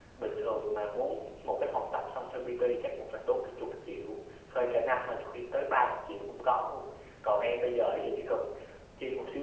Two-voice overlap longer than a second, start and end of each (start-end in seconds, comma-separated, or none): none